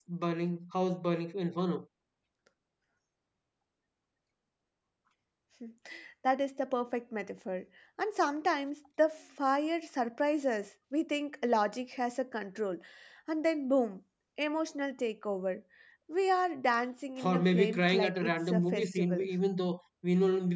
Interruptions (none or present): present